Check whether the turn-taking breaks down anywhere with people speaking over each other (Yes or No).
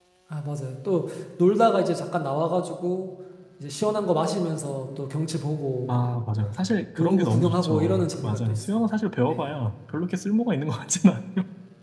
Yes